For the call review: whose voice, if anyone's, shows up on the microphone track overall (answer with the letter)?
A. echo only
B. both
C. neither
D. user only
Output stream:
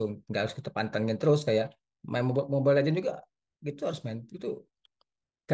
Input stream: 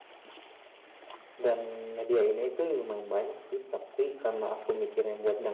D